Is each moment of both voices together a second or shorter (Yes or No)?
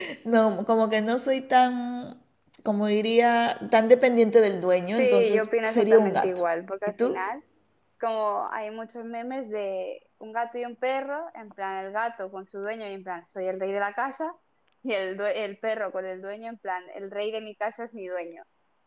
No